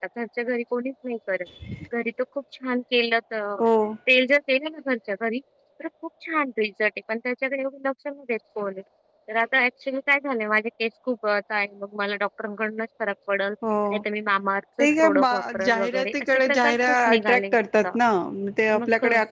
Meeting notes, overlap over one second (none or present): present